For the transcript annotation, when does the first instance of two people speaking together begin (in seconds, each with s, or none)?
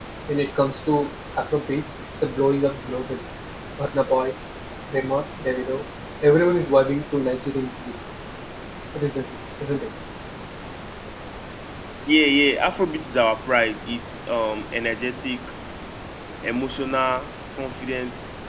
none